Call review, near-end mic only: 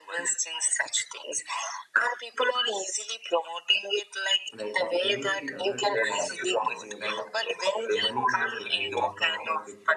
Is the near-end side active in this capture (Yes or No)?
Yes